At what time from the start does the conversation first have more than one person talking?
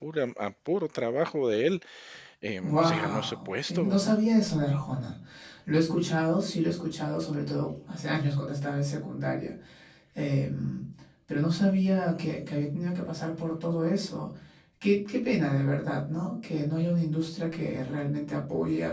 2.6 s

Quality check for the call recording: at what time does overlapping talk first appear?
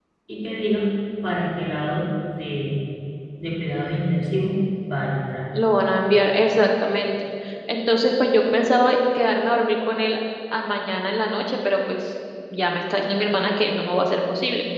none

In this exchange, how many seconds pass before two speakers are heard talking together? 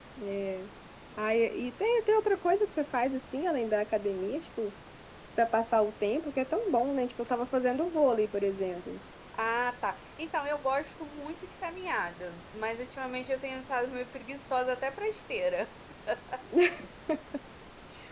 none

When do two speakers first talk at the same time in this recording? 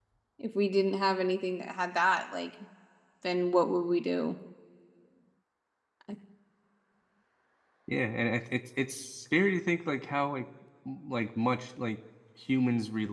none

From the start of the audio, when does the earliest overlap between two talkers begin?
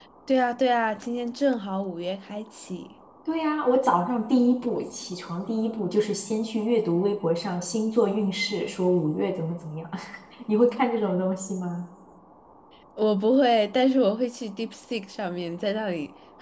none

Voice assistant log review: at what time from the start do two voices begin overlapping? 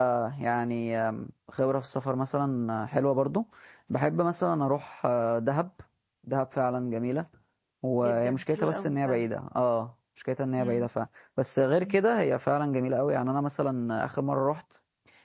8.0 s

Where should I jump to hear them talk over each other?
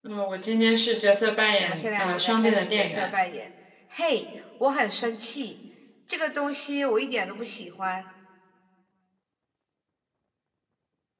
1.6 s

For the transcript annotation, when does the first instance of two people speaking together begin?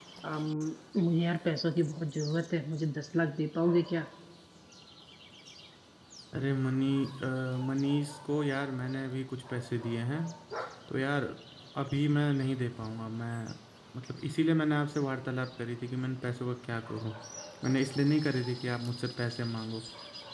none

